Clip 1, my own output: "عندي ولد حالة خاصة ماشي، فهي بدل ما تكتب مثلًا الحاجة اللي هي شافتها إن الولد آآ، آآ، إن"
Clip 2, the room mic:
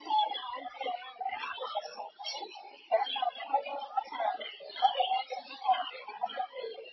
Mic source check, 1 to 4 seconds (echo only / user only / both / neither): echo only